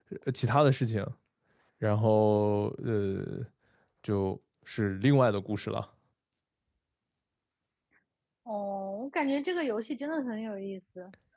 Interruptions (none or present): none